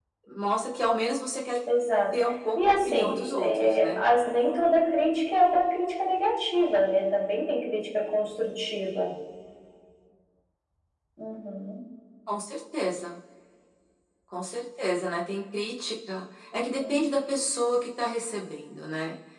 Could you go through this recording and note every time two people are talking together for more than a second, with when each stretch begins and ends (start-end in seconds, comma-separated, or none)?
2.5-4.0